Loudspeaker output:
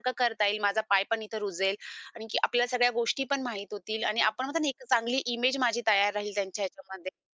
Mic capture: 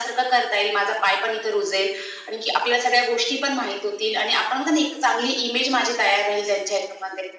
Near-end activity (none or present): none